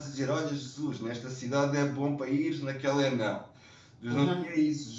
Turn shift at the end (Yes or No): No